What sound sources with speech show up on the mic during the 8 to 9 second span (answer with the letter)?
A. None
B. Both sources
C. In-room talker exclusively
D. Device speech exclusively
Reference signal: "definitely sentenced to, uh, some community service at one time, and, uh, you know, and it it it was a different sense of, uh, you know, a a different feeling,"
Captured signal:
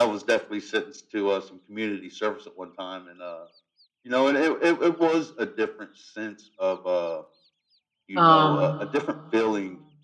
B